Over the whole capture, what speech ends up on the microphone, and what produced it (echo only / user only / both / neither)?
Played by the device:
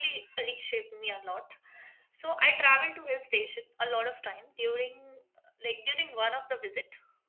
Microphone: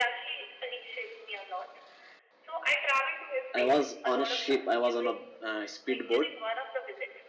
both